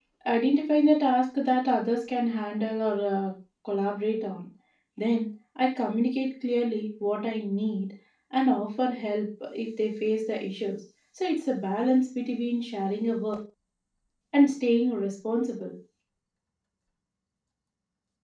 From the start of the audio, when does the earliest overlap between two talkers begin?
none

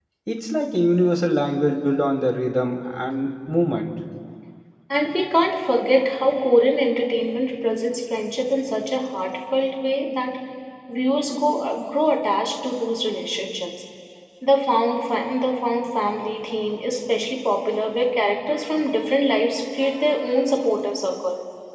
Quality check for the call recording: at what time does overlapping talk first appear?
none

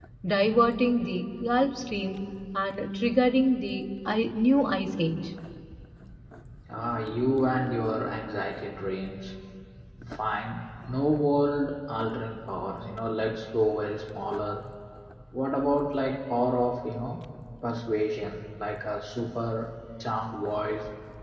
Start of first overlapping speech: none

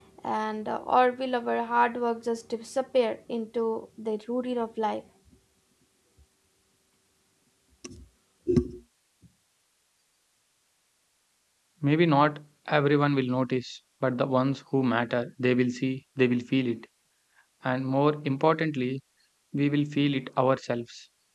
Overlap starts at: none

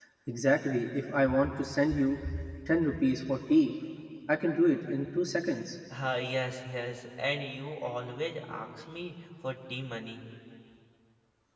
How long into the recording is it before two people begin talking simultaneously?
none

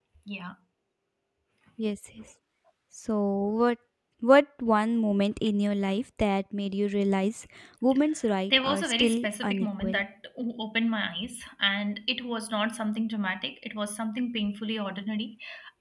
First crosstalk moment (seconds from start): 8.5 s

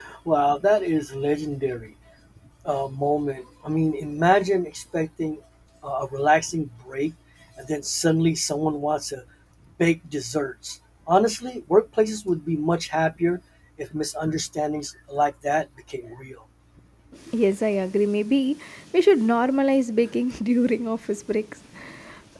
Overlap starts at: none

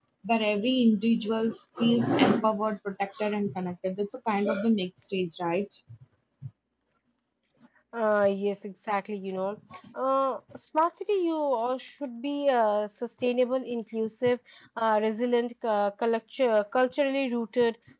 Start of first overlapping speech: none

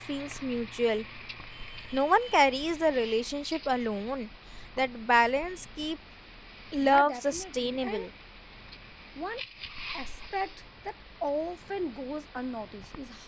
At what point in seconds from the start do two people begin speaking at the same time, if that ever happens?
6.8 s

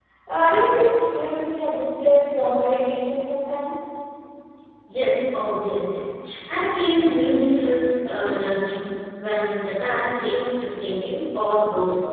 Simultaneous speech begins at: none

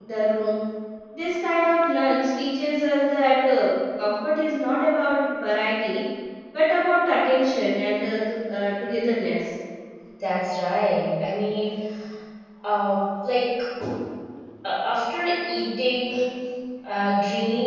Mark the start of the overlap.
none

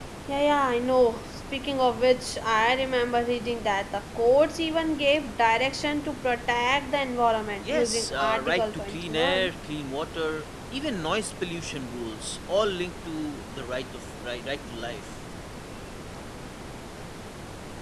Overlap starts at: 7.6 s

